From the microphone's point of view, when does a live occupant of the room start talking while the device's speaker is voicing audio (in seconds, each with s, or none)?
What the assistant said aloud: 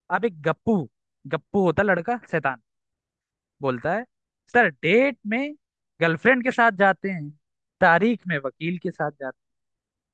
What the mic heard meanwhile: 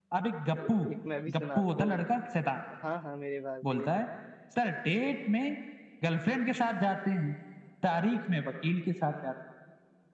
0.6 s